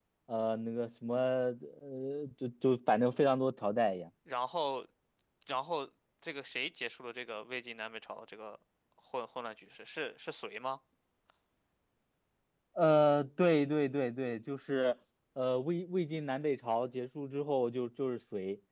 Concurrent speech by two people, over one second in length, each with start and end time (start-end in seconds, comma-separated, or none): none